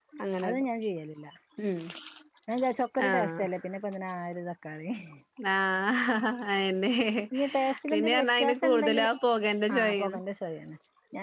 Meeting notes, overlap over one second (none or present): present